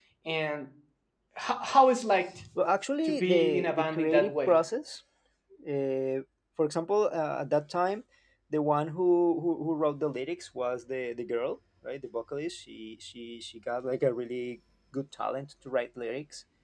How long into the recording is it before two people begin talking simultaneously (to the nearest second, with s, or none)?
3 s